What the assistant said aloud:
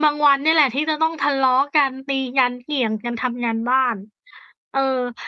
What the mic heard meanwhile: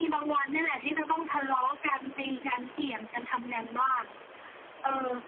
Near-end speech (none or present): none